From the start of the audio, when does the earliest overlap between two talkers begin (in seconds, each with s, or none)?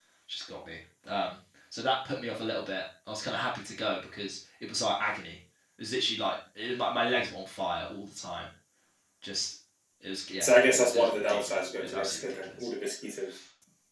10.4 s